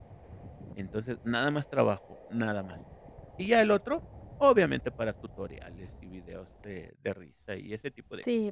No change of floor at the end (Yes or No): No